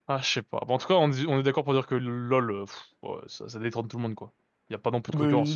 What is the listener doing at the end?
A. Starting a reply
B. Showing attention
A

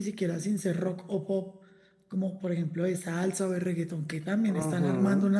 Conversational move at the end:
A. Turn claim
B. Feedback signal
A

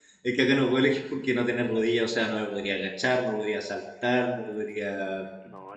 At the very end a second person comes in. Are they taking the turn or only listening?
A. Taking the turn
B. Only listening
B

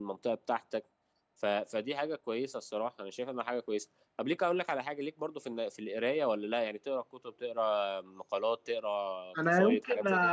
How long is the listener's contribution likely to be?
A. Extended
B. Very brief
A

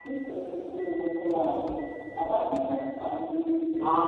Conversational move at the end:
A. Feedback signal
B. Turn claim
B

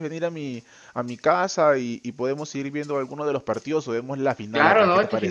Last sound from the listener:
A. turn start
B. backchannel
A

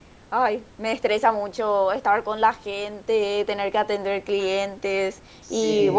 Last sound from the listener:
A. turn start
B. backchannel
B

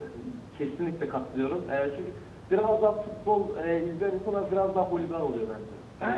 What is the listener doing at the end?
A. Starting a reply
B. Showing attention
A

